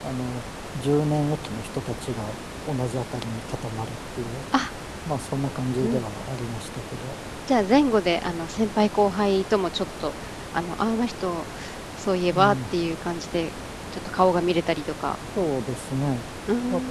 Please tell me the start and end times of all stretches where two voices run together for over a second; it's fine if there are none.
none

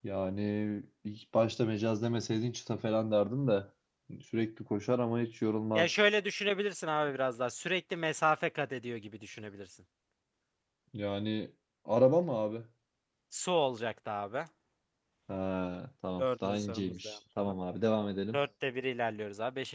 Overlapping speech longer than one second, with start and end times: 16.2-17.5

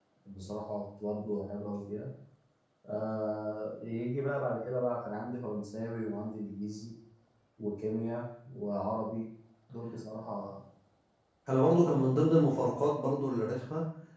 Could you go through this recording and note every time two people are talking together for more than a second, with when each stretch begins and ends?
none

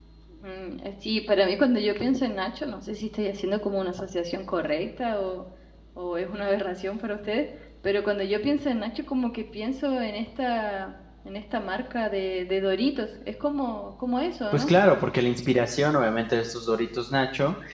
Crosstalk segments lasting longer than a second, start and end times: none

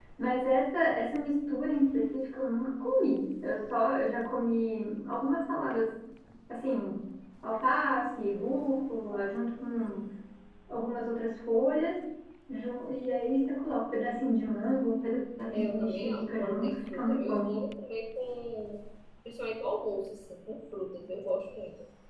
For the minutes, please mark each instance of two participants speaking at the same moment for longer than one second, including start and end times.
15.5-17.5

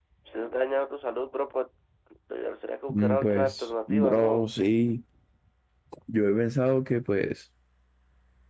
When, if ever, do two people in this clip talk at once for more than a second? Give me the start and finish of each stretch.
2.9-4.5

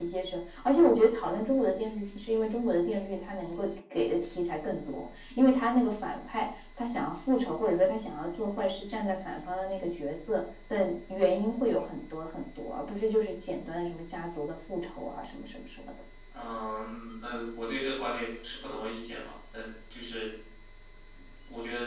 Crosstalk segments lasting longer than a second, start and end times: none

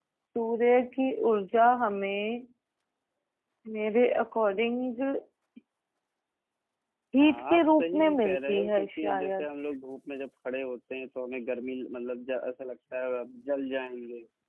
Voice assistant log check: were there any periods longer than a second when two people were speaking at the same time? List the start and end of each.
7.2-9.5

